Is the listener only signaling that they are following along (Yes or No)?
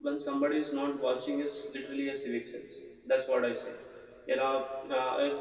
Yes